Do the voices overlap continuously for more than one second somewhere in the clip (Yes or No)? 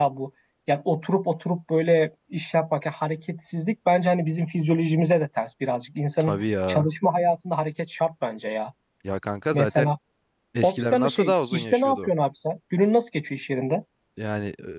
Yes